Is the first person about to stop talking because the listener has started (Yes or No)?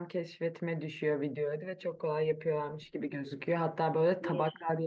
No